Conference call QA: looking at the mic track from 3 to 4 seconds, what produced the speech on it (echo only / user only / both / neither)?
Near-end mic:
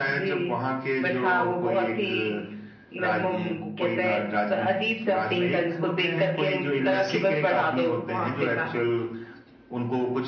echo only